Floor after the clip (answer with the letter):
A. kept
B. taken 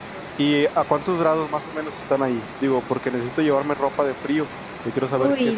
B